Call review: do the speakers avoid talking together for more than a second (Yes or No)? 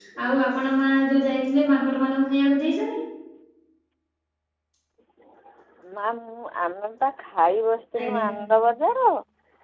Yes